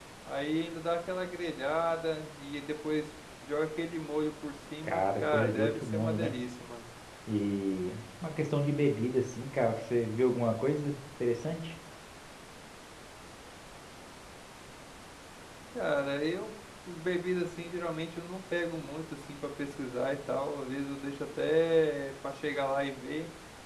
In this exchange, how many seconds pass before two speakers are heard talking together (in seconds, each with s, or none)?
4.8 s